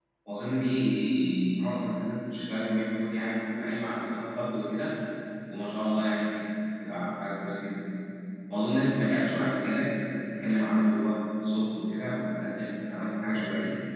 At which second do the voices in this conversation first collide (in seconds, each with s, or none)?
none